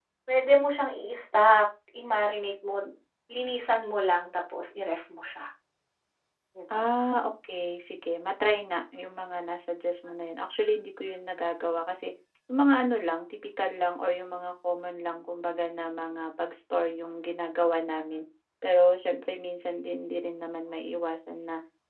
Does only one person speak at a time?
Yes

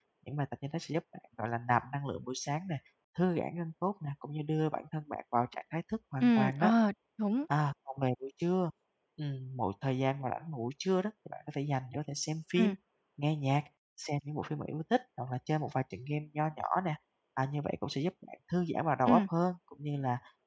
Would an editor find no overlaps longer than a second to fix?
Yes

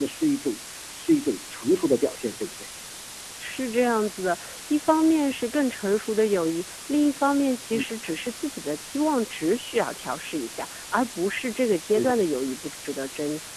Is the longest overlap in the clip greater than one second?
No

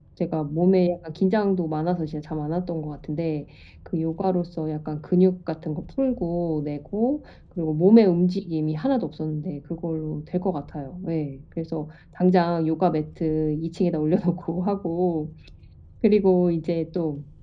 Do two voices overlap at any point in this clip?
No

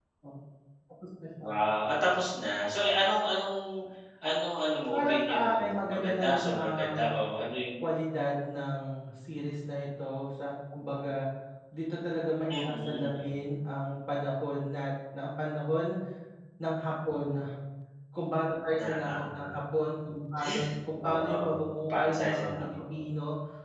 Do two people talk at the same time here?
Yes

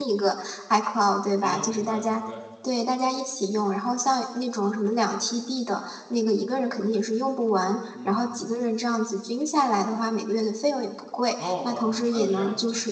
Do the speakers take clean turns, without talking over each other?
No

